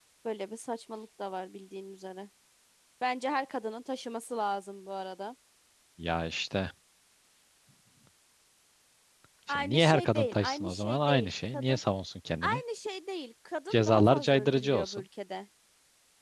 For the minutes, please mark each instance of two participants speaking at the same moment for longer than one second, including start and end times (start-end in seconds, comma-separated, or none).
9.5-11.8, 13.7-15.0